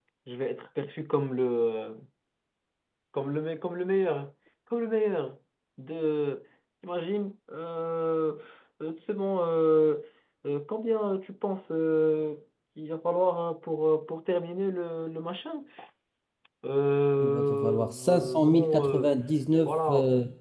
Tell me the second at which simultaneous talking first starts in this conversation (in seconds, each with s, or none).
17.2 s